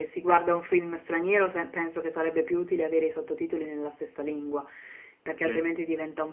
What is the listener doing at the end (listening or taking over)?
listening